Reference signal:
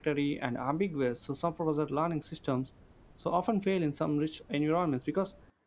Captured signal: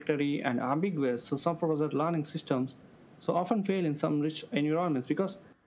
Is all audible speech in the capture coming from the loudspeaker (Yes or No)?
Yes